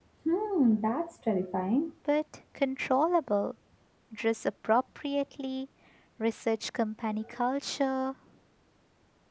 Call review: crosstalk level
none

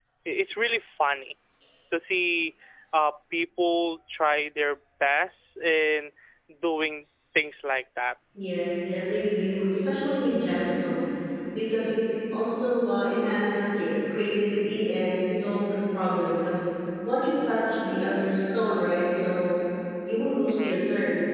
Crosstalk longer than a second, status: none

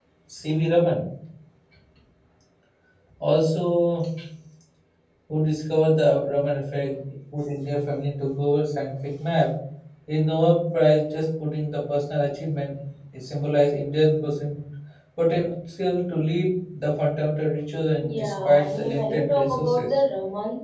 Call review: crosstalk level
present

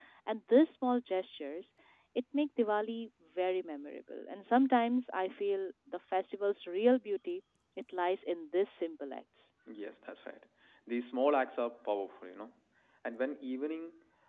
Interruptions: none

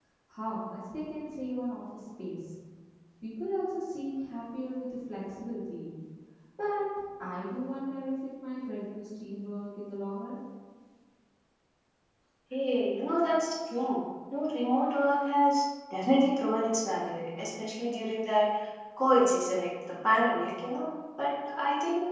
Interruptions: none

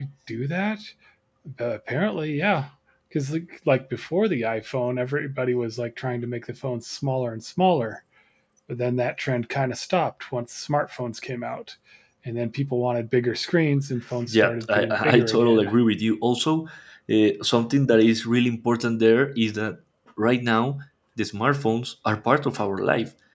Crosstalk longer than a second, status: present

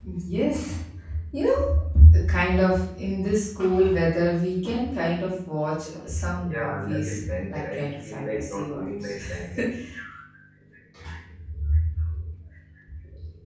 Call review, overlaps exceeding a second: present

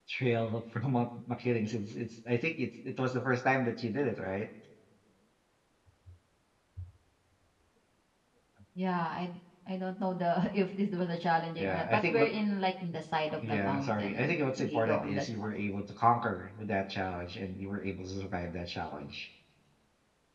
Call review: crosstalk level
present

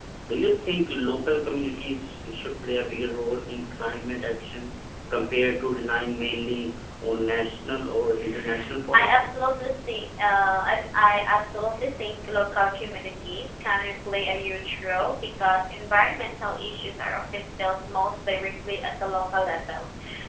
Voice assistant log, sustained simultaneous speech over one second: none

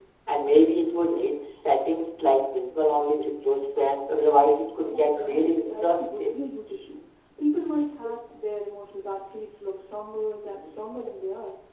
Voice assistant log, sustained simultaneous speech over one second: present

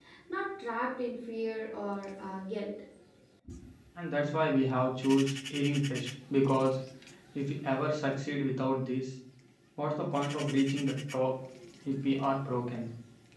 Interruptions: none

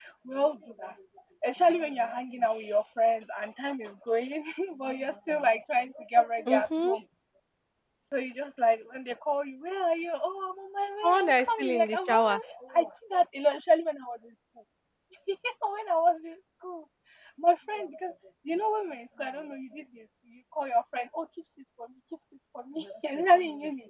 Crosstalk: present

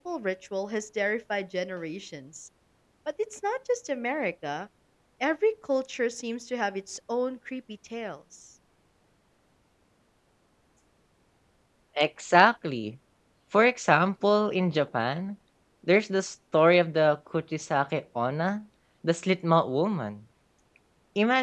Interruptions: none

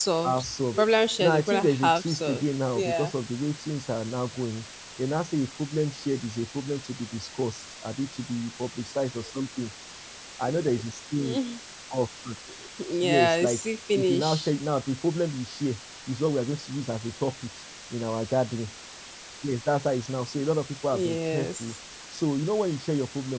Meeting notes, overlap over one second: present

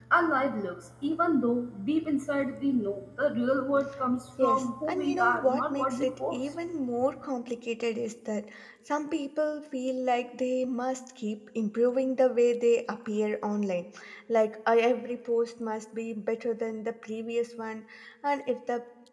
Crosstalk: present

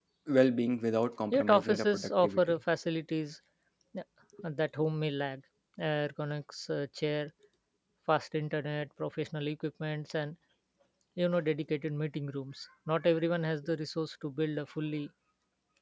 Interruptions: present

